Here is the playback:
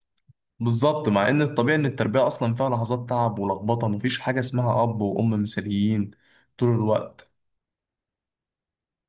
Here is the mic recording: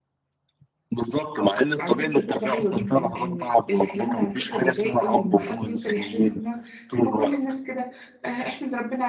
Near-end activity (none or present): present